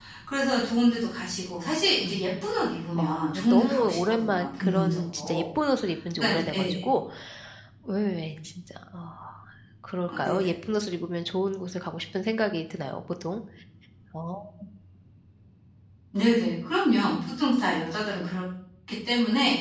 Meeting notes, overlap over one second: present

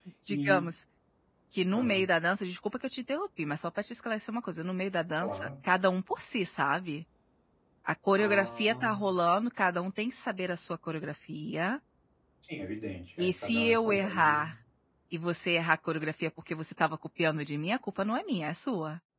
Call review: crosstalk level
present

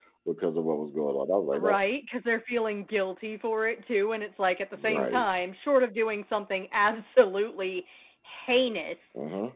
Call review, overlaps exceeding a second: none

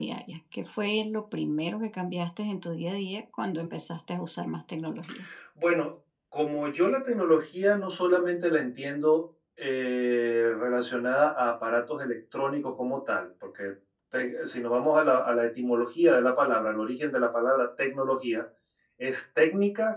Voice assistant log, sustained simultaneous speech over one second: none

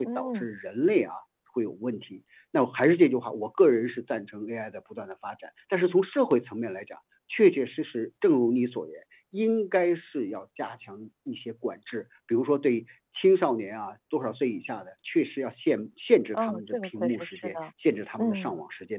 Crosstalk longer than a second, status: present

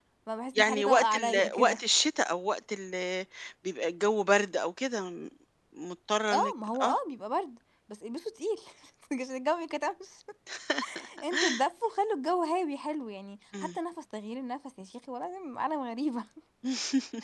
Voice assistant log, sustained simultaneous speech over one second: present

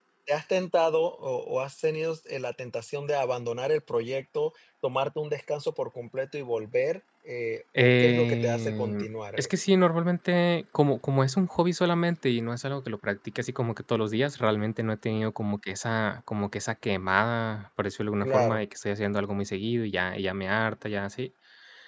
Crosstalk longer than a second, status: present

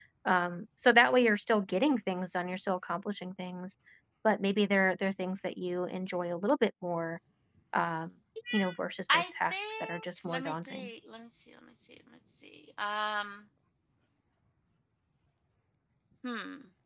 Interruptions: present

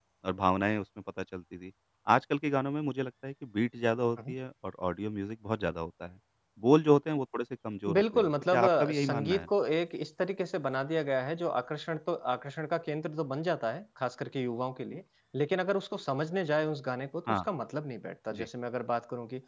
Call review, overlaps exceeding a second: present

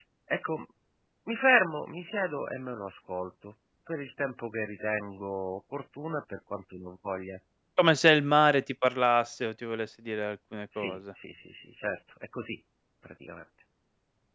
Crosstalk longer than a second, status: none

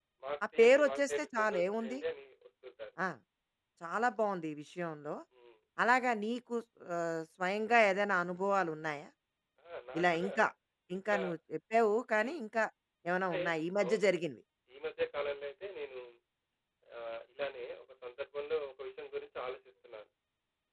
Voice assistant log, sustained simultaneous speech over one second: present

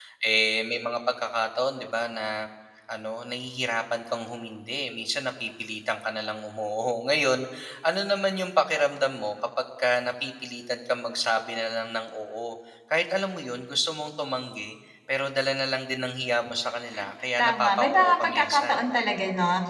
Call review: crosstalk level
present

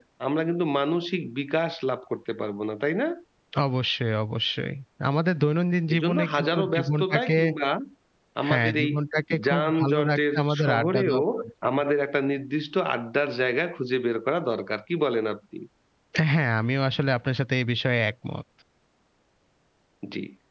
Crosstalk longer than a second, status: present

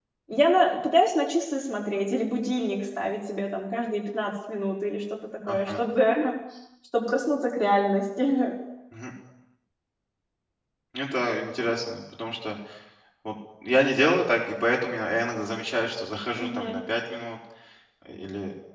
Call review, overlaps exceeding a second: none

